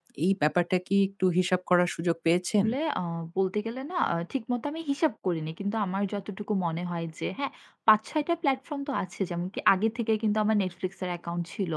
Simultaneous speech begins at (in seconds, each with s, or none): none